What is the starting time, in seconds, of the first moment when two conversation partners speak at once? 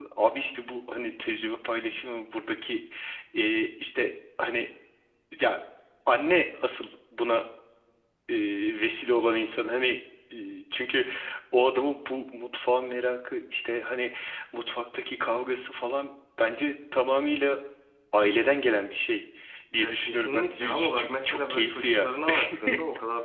19.8 s

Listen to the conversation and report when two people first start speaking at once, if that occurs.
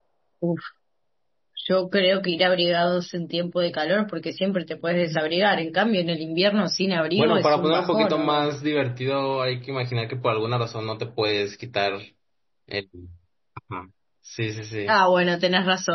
7.2 s

